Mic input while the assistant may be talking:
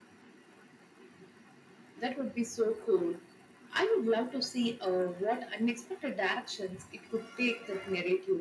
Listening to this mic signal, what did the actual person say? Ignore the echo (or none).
none